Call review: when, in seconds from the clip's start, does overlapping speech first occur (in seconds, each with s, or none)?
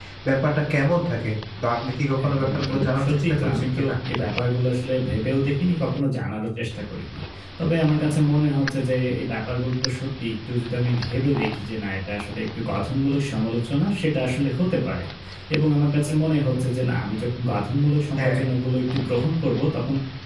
2.3 s